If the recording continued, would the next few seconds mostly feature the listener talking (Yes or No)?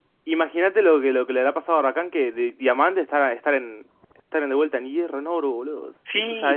Yes